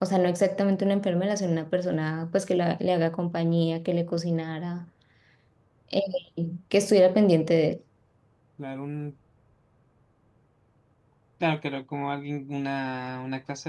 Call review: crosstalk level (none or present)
none